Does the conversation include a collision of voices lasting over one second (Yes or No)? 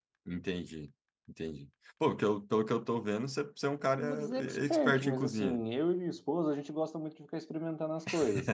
Yes